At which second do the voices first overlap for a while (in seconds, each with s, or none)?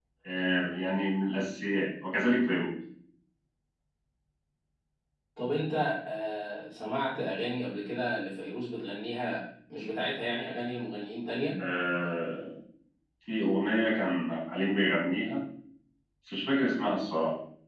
none